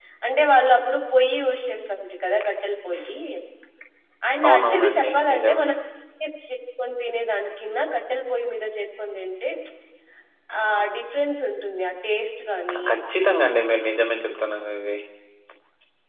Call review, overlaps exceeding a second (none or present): present